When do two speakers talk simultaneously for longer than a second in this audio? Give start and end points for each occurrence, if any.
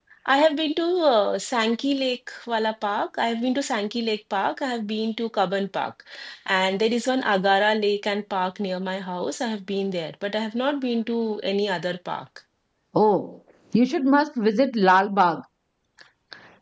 none

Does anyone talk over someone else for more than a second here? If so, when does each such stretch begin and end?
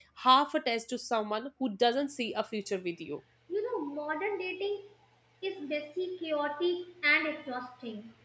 none

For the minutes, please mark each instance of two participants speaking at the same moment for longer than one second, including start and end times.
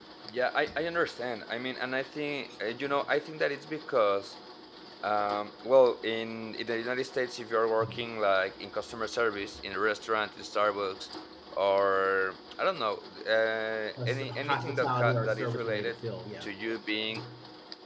14.1-16.0

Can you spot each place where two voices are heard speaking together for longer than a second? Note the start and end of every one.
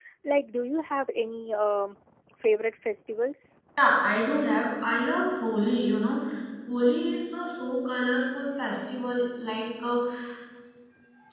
none

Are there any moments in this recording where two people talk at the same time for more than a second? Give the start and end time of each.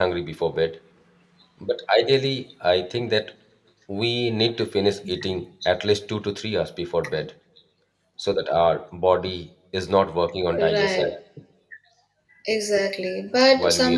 none

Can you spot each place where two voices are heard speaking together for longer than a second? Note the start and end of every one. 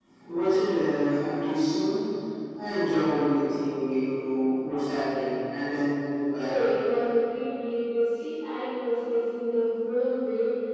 none

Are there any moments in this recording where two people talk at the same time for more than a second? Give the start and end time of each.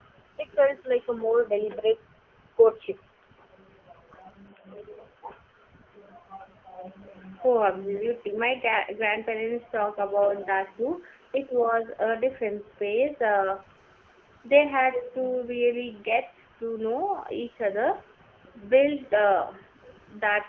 none

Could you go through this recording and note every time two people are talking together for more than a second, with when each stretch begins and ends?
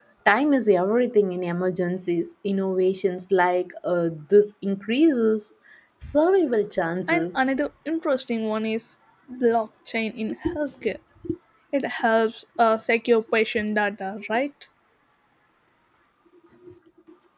none

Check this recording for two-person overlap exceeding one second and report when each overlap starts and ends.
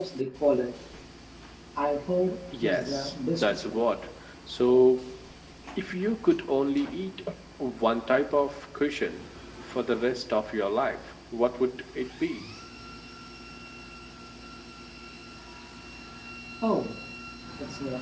2.6-3.8

